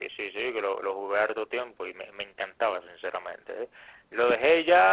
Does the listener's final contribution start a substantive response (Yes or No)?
No